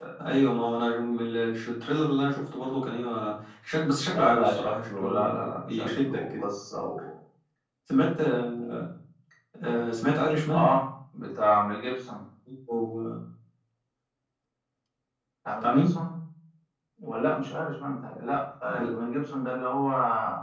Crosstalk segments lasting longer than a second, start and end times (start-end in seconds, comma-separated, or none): 4.1-6.5